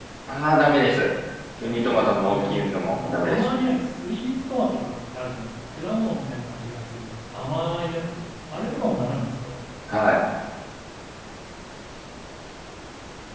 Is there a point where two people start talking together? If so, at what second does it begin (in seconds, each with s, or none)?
1.6 s